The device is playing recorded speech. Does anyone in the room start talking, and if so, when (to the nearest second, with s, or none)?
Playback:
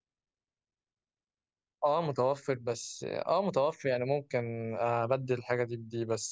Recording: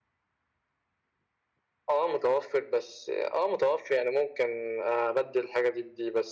none